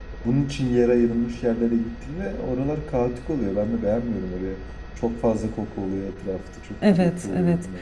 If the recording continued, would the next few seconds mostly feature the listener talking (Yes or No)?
Yes